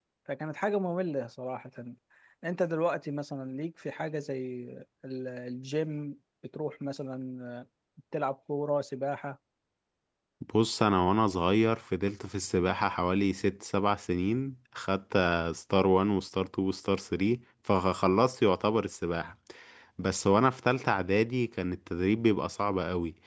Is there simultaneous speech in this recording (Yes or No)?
No